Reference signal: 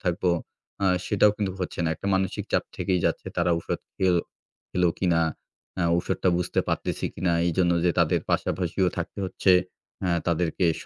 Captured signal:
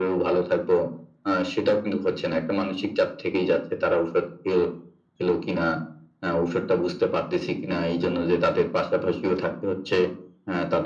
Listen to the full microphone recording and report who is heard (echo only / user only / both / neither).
echo only